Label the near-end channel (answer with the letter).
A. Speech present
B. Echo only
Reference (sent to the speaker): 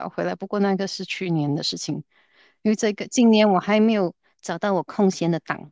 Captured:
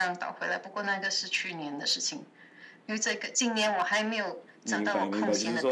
A